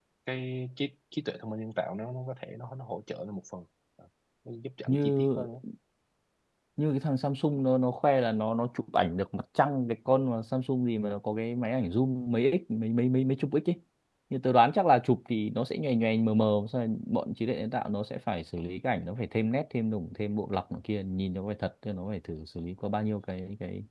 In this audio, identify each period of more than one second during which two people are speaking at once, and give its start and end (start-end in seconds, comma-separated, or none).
none